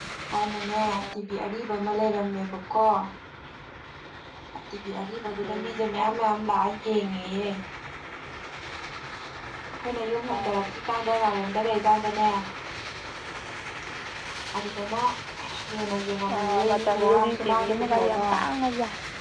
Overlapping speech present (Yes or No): Yes